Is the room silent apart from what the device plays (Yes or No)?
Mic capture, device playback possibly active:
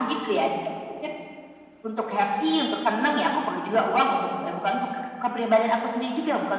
Yes